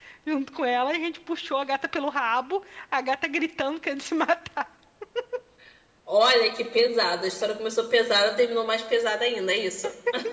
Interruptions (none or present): none